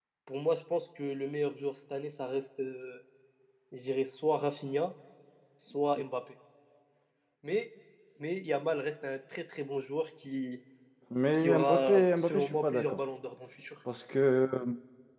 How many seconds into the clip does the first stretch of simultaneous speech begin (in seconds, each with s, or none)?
11.3 s